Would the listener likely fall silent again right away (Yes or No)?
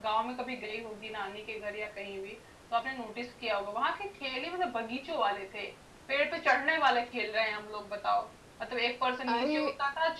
Yes